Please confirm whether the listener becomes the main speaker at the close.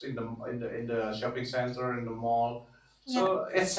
No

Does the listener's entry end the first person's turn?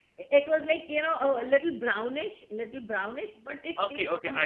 Yes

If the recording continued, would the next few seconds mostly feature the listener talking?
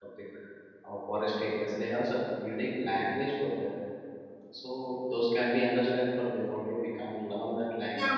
Yes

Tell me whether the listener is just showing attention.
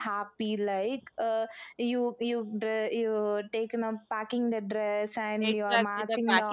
No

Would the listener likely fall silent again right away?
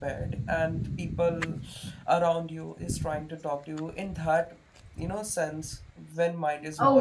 No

